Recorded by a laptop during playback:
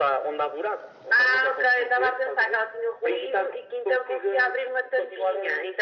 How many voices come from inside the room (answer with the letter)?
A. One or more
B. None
B